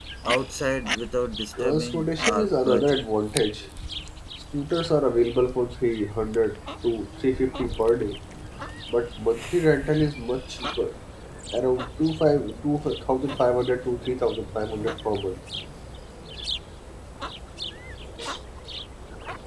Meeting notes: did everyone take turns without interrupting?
No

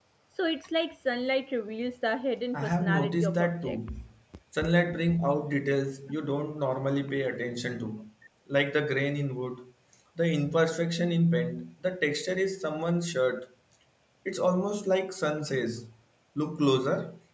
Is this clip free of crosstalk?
No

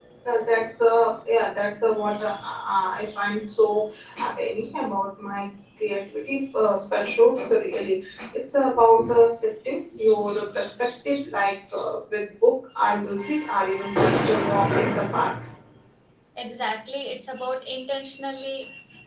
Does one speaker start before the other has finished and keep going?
No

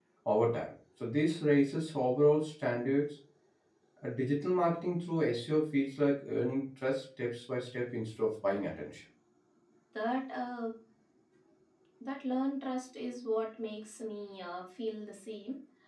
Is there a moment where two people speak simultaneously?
No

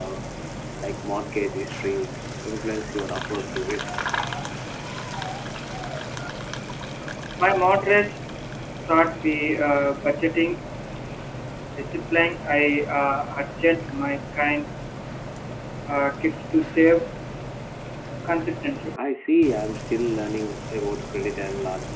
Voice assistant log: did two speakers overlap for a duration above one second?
No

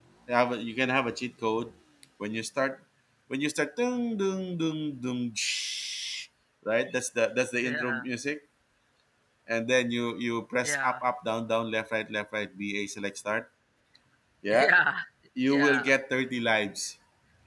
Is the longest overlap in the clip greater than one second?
No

